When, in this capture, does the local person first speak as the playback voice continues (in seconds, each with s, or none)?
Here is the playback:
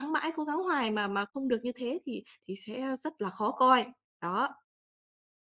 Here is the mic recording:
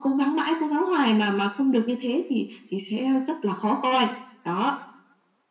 none